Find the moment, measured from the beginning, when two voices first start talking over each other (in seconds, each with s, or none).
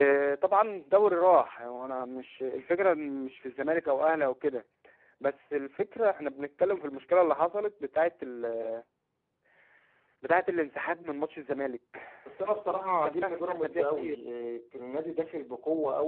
12.4 s